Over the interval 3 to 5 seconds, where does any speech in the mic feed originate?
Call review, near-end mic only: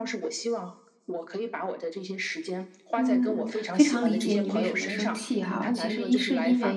both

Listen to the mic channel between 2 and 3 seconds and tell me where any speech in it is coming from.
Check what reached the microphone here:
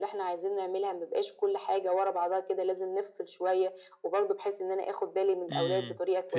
echo only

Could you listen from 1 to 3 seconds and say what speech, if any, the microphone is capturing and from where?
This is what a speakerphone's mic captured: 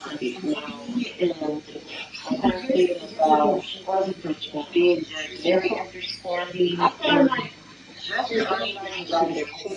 echo only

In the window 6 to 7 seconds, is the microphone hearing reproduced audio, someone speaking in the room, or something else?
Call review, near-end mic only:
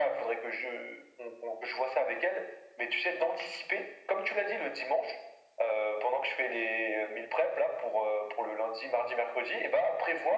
echo only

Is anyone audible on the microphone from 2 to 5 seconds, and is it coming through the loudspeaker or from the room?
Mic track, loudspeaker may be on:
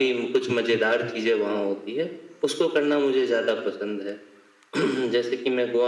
echo only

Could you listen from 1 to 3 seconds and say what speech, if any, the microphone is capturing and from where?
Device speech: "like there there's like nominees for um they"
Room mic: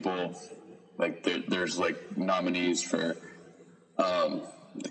echo only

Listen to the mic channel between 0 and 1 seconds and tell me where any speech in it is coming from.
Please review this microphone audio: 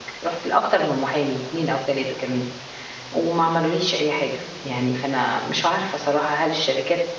user only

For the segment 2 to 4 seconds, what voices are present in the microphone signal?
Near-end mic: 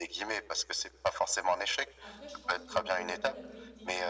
both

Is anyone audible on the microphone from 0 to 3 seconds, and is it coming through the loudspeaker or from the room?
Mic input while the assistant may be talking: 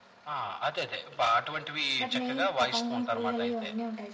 both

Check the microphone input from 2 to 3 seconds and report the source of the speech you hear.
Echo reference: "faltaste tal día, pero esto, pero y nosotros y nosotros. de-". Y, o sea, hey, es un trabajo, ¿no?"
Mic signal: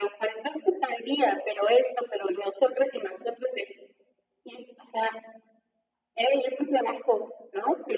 echo only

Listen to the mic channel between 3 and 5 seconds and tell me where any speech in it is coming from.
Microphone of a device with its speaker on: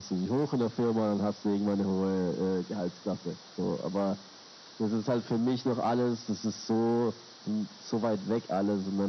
echo only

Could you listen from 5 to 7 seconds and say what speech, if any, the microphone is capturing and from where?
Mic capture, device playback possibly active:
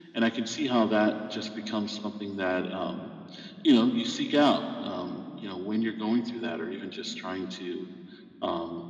echo only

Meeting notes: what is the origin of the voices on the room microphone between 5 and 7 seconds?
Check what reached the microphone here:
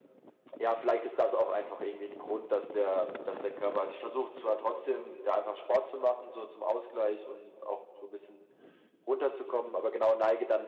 echo only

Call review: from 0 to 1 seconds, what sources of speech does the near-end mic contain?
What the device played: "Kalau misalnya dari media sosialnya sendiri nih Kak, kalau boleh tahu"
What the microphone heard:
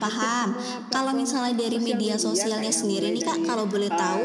both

